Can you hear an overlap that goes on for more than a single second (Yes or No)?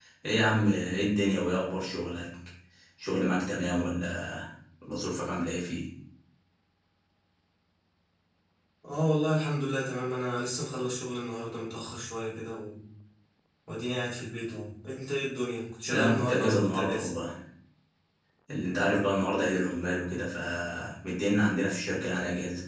Yes